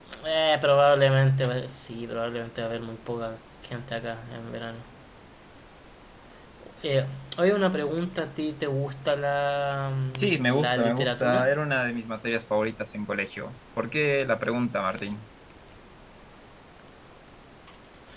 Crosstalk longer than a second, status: present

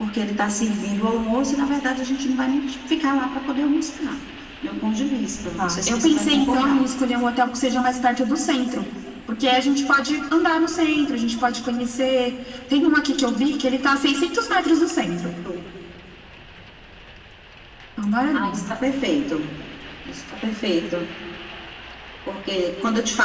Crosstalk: present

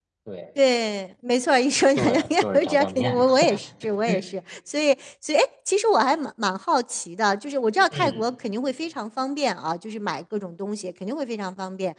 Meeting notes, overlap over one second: present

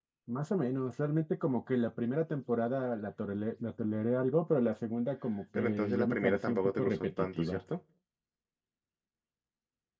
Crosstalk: present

